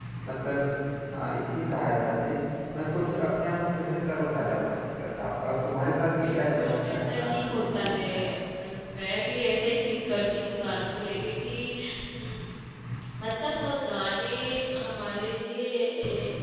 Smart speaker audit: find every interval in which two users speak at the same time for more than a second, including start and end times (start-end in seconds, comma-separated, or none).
6.2-7.9